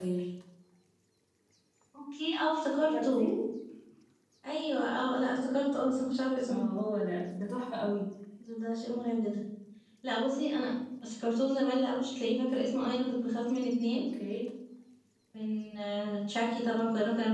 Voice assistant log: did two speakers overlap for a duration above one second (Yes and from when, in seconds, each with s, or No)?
No